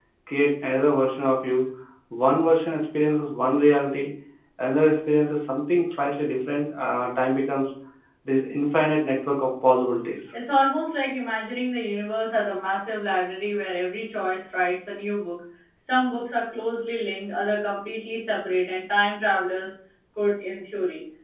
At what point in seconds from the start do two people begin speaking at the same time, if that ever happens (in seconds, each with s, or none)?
none